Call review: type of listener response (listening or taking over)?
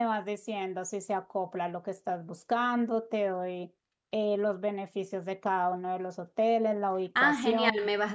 taking over